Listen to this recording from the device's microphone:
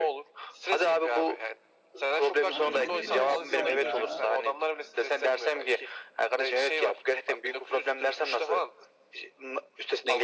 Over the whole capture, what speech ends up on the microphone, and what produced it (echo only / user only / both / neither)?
both